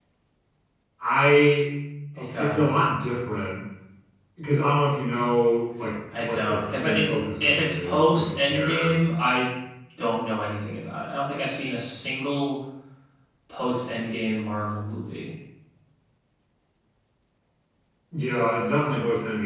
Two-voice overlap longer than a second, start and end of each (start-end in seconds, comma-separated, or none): 6.2-9.0